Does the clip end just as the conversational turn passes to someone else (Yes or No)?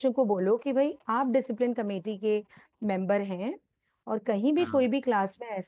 No